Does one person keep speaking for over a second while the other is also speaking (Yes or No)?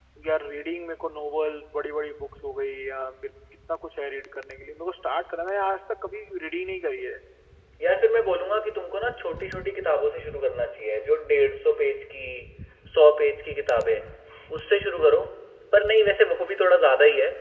No